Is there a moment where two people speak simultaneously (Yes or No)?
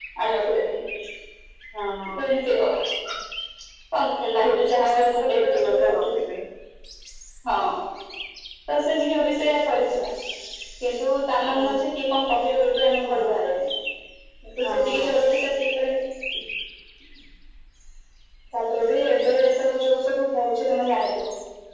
Yes